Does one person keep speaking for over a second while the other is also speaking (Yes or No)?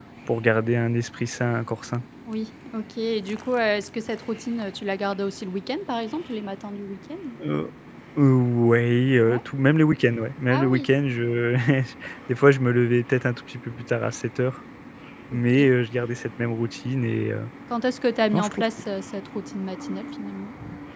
No